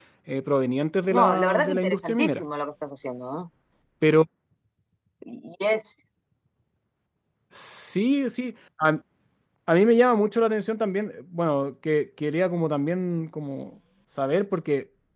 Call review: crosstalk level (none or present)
present